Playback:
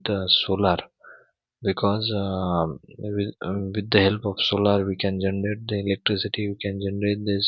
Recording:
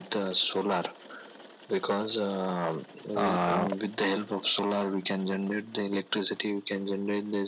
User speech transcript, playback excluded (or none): uh,